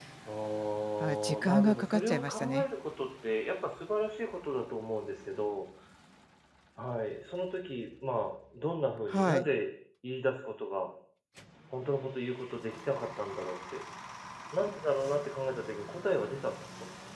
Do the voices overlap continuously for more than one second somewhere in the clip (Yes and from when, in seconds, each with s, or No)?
Yes, from 1.0 s